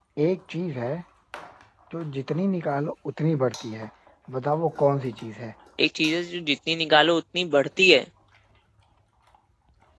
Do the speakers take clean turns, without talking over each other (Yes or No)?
Yes